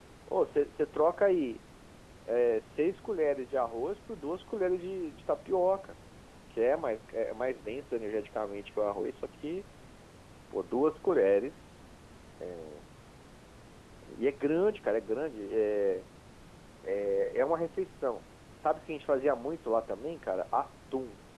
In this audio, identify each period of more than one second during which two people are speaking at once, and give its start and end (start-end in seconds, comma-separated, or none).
none